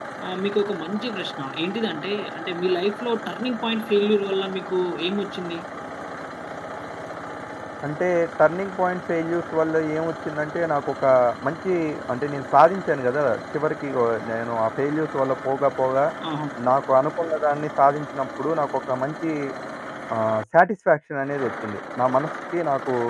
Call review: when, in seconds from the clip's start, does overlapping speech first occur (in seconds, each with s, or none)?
none